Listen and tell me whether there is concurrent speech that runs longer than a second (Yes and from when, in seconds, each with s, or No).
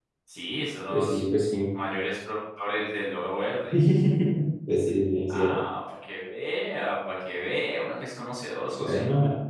No